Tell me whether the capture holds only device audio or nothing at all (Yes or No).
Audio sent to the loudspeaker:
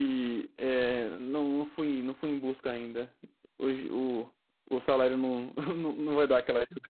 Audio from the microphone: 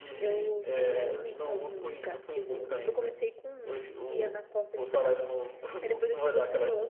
No